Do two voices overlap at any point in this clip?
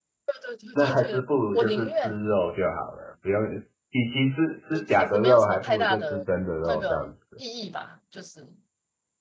Yes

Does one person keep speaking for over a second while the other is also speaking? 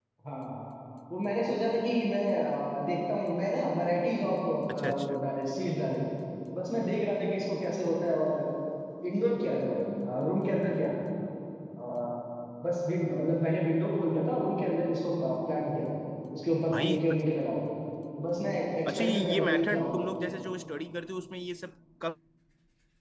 Yes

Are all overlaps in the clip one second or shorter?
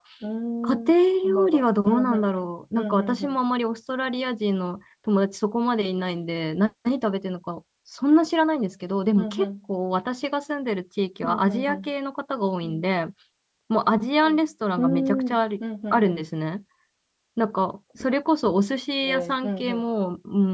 No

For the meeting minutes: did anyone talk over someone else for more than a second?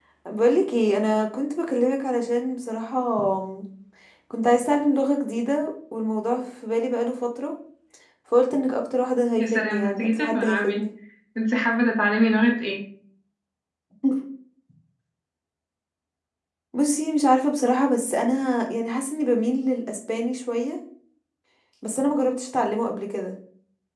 Yes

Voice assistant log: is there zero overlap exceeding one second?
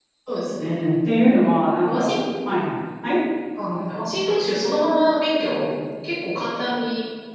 Yes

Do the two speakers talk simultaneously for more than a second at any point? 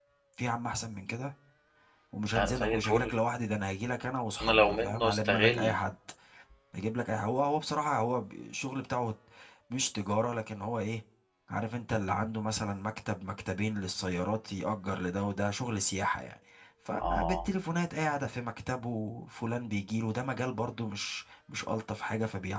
Yes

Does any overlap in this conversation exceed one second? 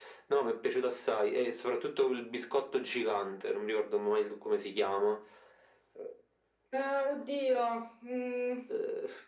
No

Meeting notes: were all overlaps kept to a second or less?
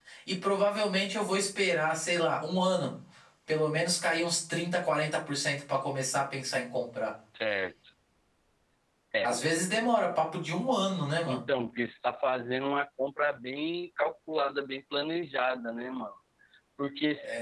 Yes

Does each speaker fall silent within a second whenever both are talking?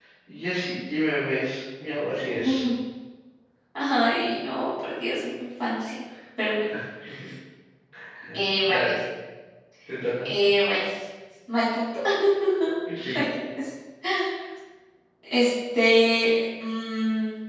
Yes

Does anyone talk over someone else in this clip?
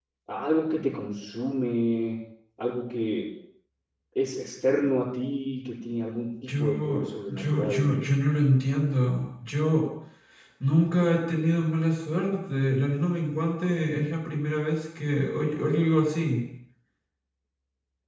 Yes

